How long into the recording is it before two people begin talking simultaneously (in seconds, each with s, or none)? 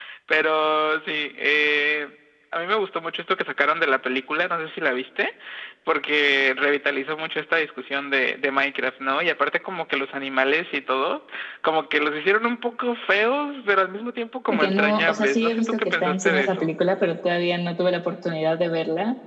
14.5 s